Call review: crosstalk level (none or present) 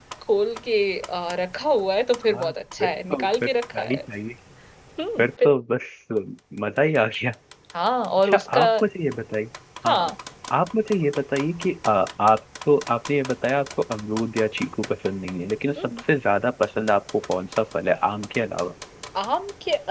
present